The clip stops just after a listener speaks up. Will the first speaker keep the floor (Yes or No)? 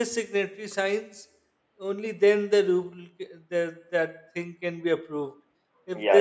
Yes